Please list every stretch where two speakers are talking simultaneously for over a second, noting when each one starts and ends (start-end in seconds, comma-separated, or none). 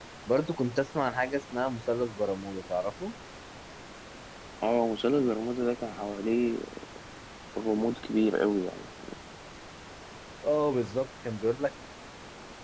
none